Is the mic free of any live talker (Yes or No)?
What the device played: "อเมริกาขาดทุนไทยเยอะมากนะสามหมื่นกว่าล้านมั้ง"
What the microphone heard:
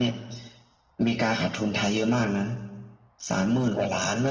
Yes